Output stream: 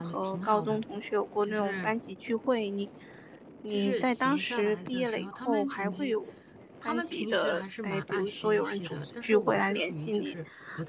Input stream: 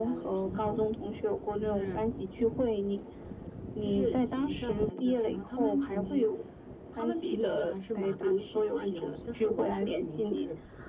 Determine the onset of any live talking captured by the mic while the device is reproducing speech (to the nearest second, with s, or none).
none